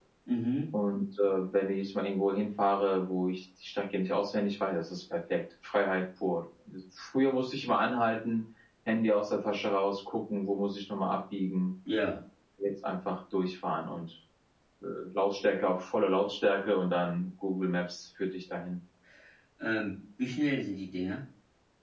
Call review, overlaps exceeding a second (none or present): none